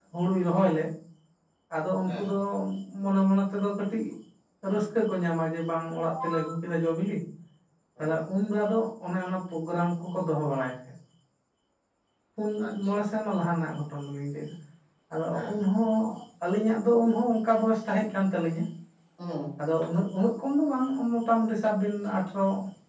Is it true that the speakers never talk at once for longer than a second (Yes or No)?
Yes